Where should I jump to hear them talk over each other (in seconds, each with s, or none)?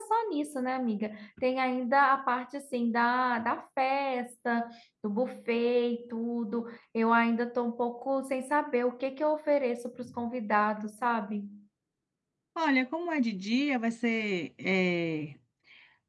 none